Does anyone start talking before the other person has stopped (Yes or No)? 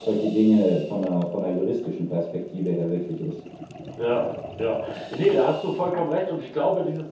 No